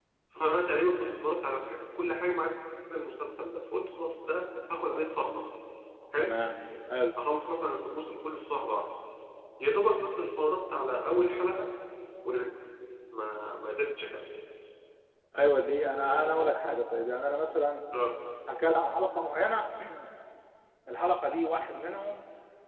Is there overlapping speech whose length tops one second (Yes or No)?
No